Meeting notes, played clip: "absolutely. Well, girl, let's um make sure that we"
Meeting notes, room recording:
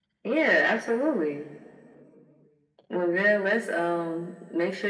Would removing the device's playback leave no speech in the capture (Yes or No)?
Yes